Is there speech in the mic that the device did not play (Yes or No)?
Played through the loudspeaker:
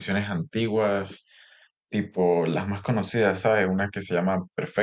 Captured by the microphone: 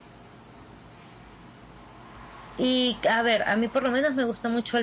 Yes